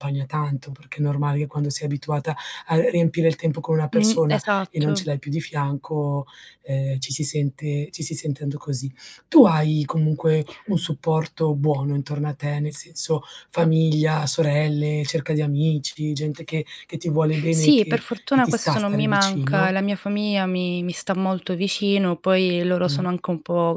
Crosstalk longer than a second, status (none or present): present